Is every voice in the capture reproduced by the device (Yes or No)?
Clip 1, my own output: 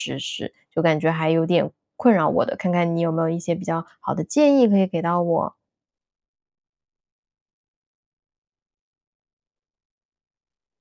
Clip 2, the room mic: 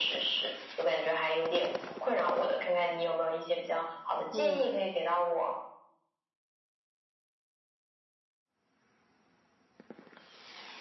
No